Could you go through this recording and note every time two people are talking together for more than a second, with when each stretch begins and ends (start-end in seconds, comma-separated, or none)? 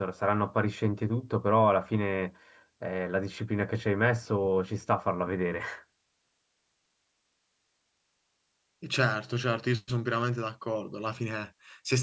none